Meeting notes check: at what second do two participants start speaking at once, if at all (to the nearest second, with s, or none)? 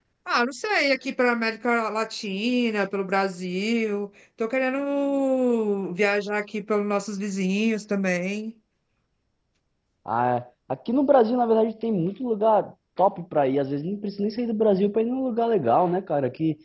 none